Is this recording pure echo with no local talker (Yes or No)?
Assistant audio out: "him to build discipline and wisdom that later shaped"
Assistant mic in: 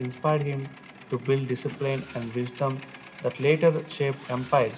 Yes